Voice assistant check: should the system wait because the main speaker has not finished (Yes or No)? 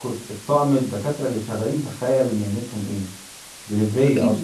No